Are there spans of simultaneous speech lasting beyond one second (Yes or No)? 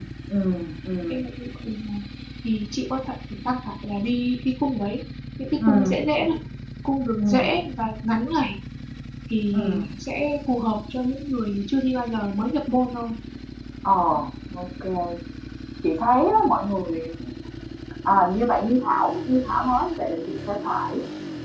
No